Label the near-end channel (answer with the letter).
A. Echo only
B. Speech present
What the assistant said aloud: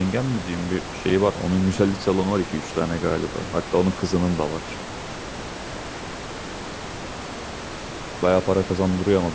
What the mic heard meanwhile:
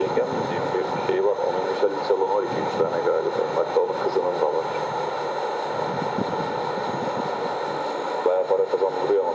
A